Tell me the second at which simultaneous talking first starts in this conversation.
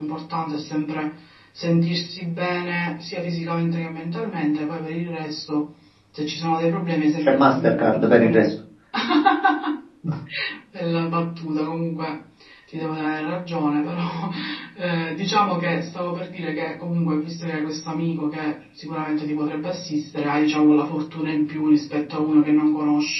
7 s

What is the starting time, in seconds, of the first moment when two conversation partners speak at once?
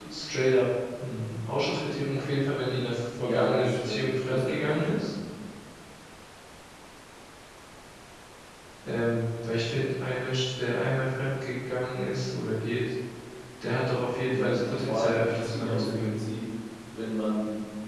3 s

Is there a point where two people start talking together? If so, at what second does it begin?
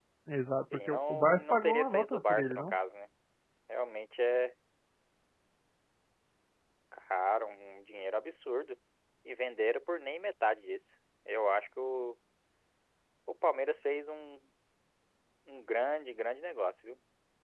1 s

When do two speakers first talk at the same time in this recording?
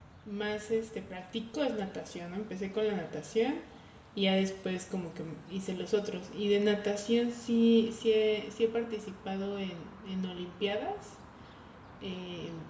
none

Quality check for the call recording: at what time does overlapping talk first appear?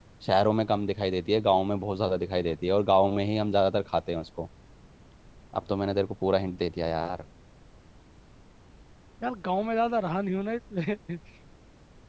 none

